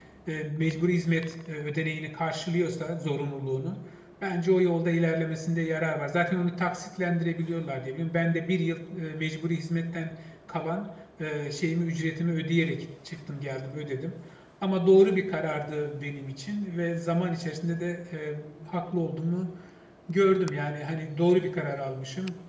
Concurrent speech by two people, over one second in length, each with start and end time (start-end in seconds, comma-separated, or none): none